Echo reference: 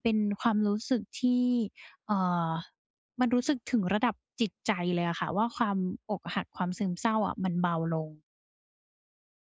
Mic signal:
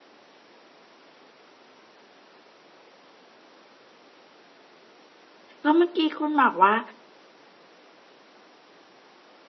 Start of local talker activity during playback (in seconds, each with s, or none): 5.6 s